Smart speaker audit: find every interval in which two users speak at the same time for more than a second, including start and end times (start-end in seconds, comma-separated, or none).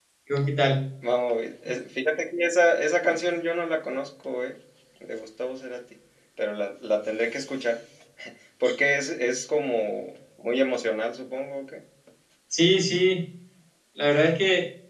none